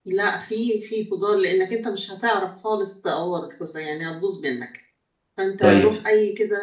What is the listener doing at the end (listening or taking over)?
listening